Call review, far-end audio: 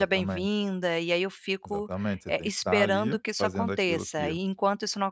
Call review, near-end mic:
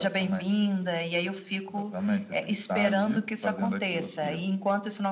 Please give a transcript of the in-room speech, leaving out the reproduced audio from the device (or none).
none